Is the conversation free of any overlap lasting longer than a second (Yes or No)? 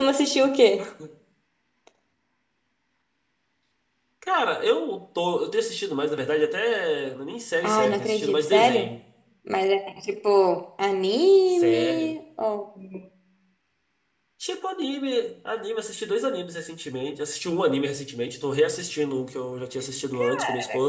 No